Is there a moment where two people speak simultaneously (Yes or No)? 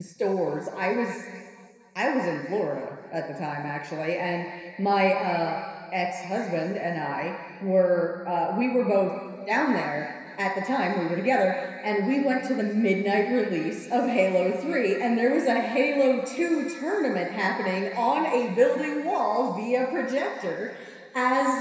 No